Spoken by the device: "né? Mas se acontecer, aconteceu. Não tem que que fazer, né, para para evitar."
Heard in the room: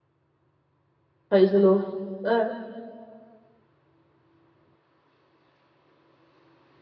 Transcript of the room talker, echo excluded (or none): Faz de novo. É.